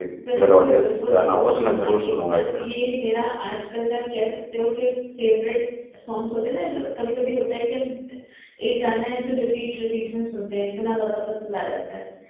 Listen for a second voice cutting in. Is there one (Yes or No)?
Yes